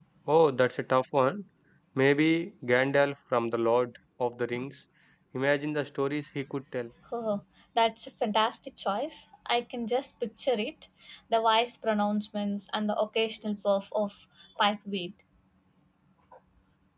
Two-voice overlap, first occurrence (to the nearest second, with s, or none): none